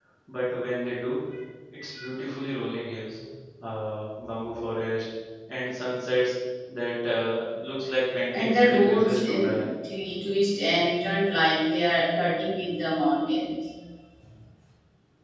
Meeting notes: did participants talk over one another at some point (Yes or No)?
Yes